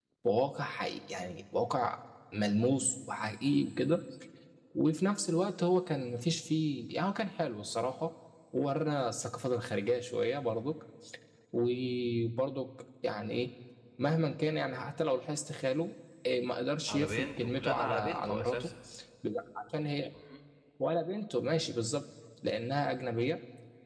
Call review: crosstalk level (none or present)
present